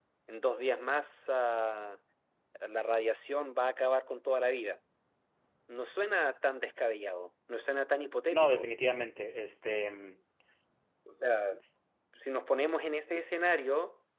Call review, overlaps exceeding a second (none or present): none